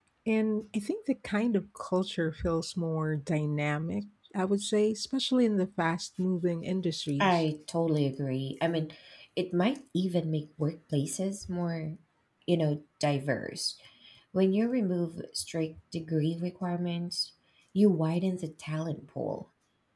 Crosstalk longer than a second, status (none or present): none